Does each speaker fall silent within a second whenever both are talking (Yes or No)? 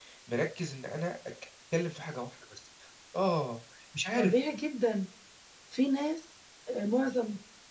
Yes